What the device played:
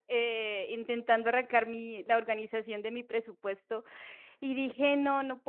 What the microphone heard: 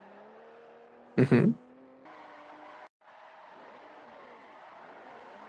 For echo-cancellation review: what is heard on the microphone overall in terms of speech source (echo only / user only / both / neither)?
user only